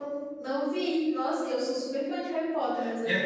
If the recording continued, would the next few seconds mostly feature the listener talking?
Yes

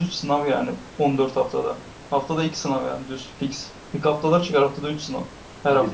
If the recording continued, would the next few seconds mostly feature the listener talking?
Yes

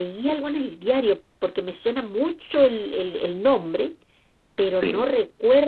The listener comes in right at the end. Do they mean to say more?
No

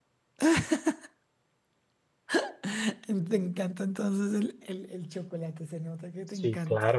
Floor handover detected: Yes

